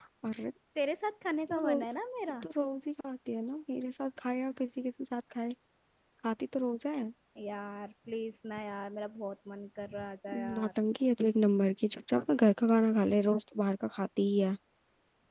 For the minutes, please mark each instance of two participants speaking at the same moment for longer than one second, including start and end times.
none

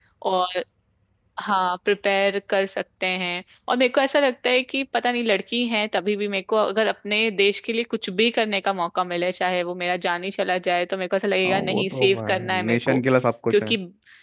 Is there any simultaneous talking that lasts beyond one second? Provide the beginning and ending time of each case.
11.4-13.0

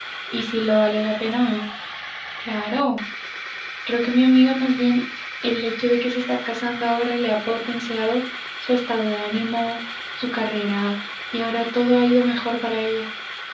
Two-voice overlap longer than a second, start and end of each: none

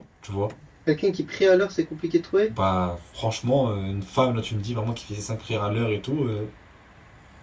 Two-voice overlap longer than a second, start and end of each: none

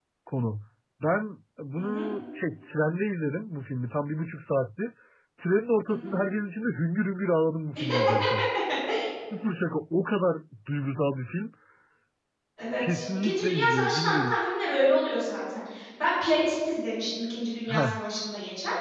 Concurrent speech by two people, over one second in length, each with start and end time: 12.8-14.4

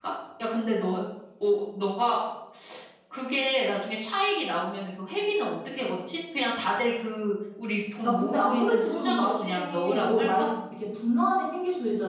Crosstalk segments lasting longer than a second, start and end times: 8.0-10.5

